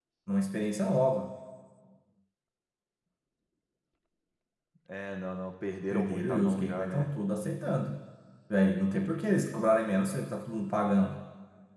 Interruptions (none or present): present